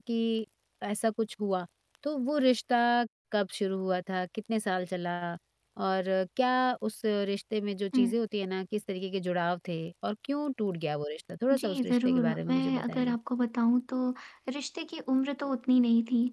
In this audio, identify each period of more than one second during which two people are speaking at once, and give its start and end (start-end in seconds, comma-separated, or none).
11.5-13.2